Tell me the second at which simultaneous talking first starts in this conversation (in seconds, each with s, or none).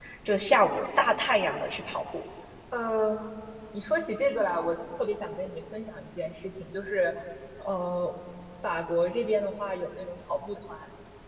none